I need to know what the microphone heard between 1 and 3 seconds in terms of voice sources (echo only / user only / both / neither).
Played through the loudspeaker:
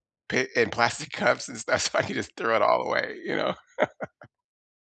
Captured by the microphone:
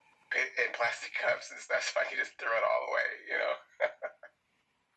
echo only